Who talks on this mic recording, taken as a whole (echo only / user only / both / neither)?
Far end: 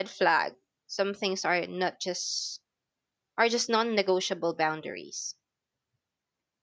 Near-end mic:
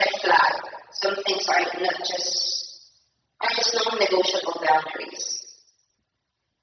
echo only